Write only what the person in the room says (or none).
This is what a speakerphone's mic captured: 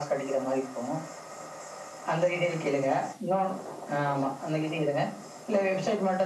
none